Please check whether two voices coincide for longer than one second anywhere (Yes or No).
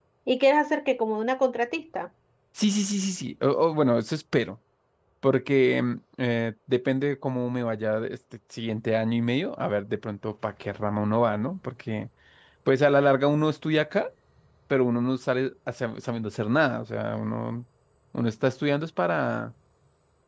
No